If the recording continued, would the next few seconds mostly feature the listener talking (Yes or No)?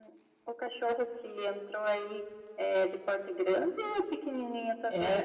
Yes